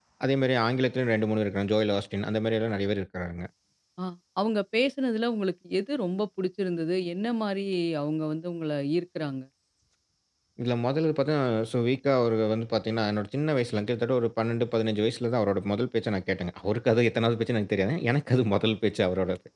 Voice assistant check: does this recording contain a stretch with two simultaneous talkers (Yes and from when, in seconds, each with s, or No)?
No